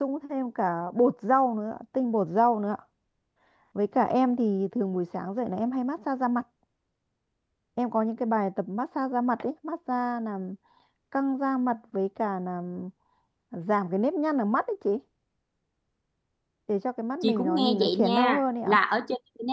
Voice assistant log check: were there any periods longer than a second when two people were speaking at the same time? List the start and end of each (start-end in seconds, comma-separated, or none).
17.2-18.8